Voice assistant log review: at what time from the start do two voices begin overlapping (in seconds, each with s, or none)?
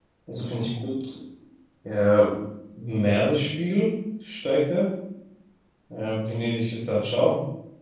none